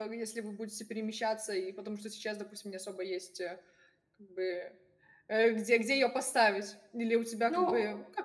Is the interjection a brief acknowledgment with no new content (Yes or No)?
Yes